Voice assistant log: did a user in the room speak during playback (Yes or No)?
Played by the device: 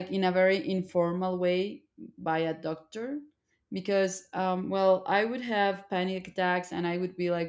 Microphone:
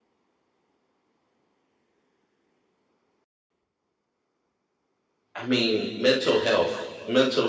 Yes